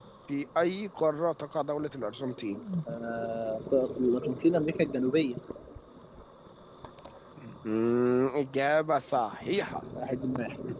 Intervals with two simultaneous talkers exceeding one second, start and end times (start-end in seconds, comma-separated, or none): none